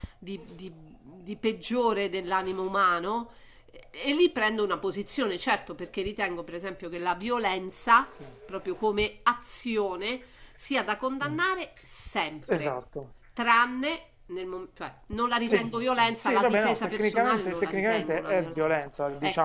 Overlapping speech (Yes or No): Yes